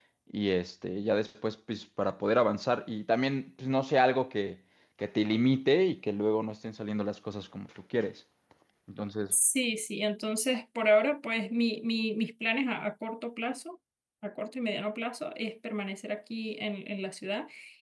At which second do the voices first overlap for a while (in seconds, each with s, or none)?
none